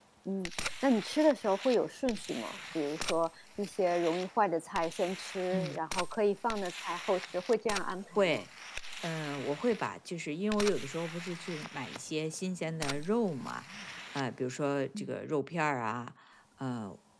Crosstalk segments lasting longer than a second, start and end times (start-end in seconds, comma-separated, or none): none